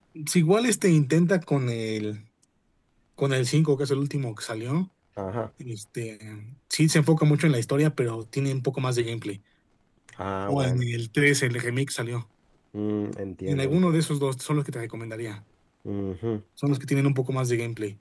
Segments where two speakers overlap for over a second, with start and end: none

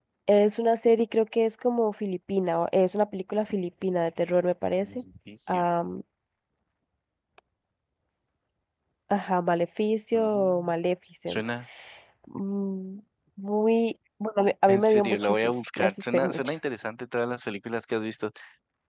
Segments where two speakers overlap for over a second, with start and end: 14.7-16.5

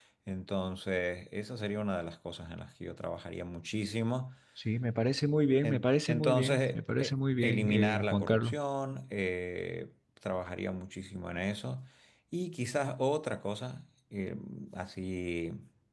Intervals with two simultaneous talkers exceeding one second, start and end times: 5.6-8.5

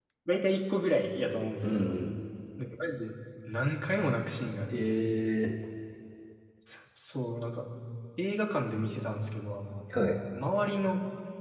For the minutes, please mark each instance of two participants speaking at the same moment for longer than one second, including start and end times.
none

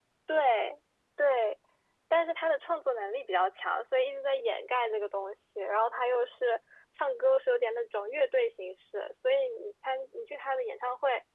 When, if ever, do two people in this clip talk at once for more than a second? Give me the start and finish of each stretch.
none

